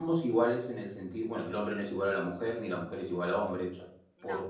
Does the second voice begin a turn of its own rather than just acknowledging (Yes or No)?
No